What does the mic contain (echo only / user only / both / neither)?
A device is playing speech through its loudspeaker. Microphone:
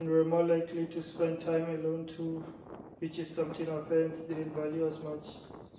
user only